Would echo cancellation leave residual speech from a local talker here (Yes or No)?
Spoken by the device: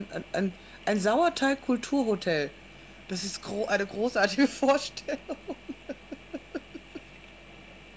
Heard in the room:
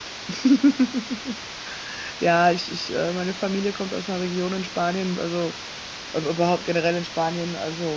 Yes